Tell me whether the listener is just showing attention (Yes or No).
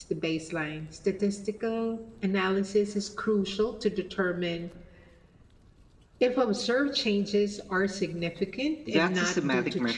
No